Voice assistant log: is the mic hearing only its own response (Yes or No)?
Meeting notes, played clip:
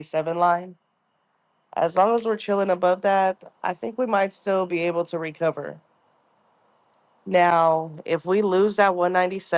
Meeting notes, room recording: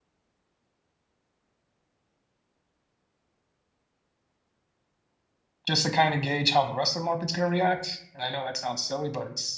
No